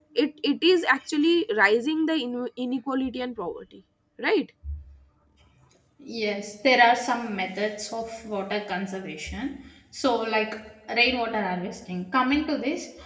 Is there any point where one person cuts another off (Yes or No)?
No